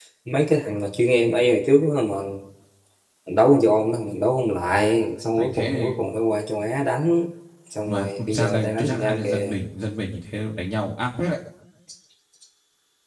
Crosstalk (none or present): present